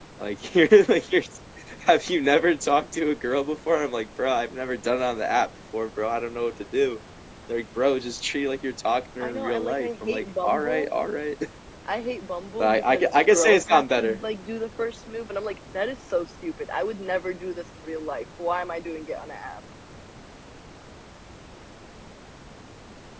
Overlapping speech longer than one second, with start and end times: 9.2-10.9, 12.6-14.2

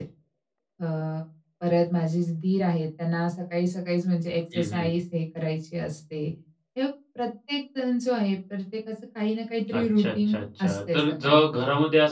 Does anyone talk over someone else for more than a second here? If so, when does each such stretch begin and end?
9.7-11.4

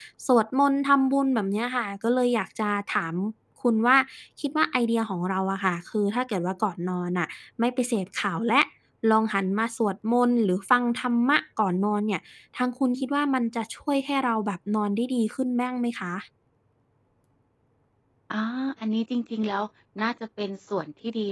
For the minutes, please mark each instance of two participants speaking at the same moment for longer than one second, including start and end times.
none

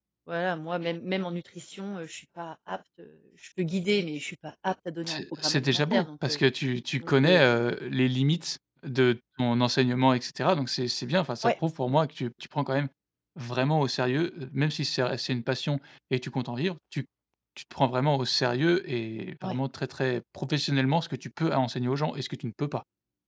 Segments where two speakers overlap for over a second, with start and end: 5.0-6.4

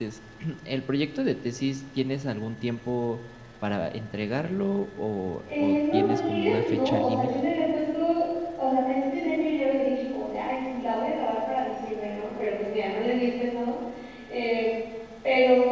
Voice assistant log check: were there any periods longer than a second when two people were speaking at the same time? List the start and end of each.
5.6-7.3

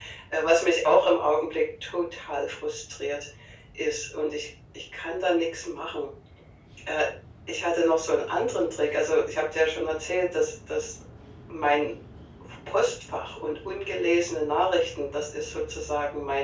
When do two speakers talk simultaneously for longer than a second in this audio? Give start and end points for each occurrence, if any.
none

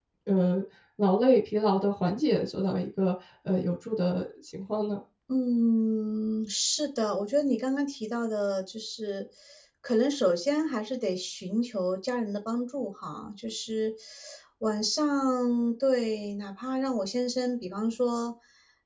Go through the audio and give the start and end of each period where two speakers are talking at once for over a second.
none

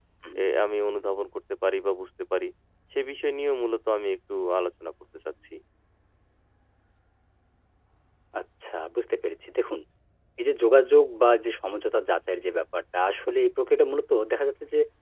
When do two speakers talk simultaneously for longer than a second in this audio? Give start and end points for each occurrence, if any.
none

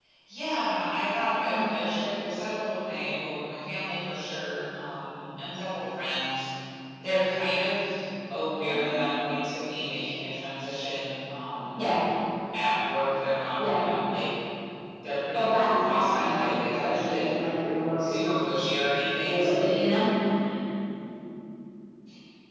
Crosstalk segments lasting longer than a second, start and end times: 15.3-17.4

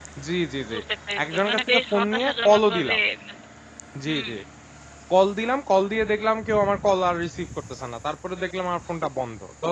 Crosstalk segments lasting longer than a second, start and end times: 1.3-3.0

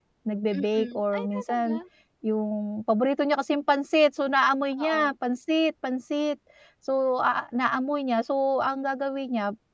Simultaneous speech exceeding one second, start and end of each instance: 0.5-1.8

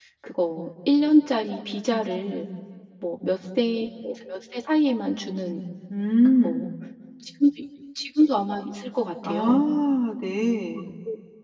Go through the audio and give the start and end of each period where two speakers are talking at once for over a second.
none

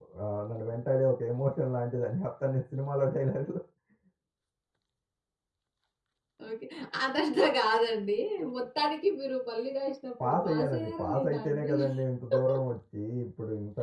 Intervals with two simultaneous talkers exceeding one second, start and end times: 10.2-11.7

